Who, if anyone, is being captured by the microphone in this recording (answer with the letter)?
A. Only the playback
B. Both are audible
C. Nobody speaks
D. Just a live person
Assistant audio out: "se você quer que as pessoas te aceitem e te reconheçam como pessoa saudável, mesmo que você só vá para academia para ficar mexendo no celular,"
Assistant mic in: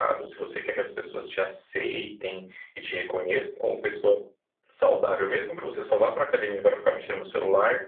A